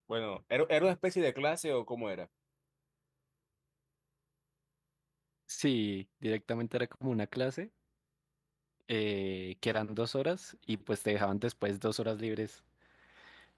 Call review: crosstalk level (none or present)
none